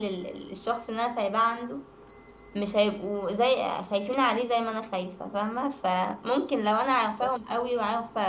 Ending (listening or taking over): listening